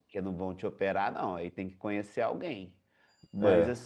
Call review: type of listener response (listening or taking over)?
listening